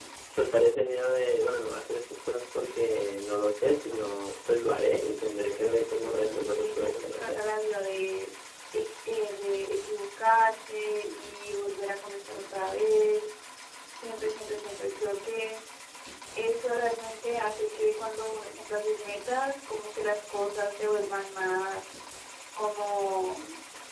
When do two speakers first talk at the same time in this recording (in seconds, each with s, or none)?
4.7 s